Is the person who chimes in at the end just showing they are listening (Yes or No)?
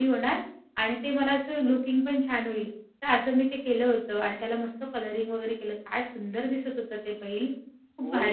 No